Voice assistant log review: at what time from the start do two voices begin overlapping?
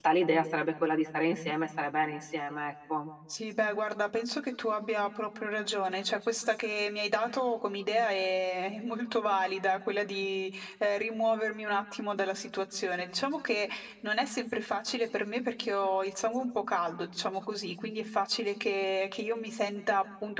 none

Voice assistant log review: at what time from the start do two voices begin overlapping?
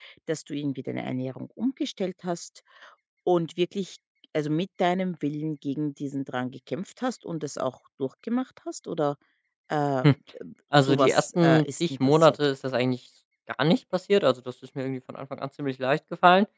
10.8 s

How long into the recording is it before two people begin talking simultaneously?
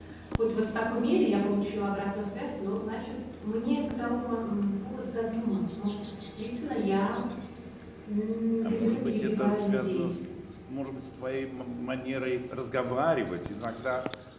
8.6 s

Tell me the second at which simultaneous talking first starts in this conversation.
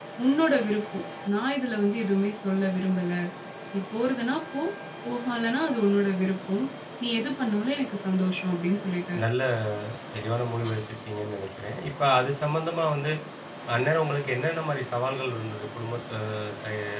none

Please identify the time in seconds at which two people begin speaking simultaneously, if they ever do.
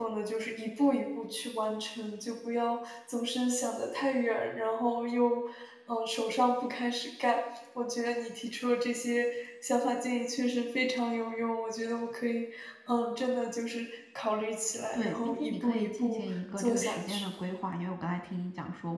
14.9 s

